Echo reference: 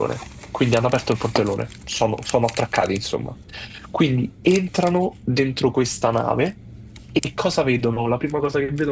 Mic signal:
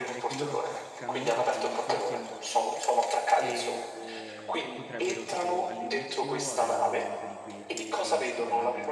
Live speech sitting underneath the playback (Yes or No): Yes